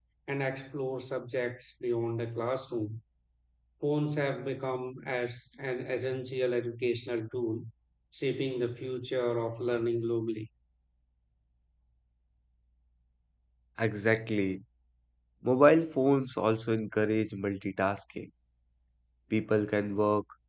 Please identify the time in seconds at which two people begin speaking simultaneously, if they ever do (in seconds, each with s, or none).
none